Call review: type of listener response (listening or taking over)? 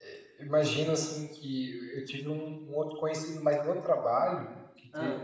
listening